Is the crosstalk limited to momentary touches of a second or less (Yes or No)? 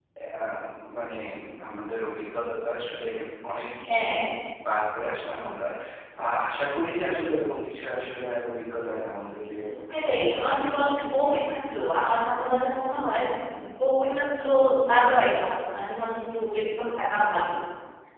No